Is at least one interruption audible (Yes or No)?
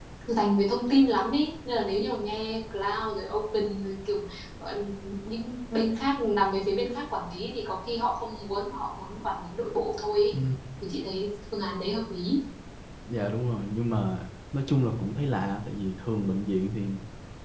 No